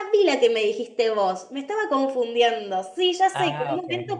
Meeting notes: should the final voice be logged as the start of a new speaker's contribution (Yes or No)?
No